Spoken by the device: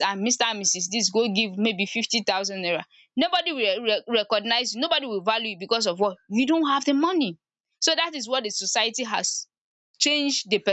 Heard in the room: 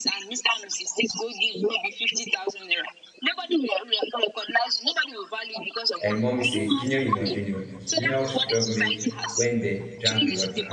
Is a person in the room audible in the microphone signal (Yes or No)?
Yes